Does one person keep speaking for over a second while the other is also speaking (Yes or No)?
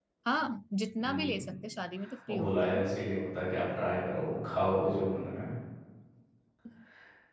No